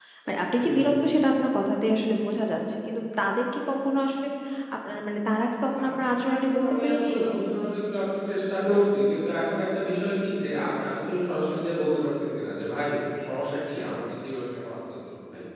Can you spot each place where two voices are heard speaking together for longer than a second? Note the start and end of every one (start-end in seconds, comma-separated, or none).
5.8-7.3